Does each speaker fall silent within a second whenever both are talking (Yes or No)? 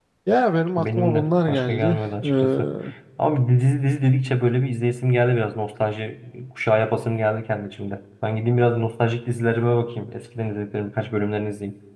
No